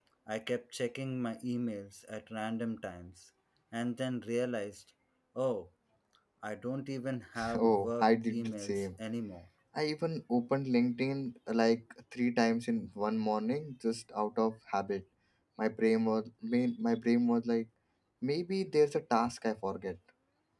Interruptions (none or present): present